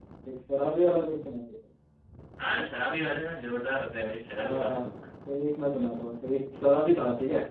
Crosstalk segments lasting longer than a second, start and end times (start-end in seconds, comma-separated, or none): none